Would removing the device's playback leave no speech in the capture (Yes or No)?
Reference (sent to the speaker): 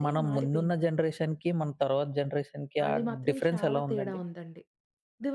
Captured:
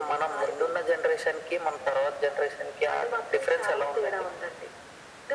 Yes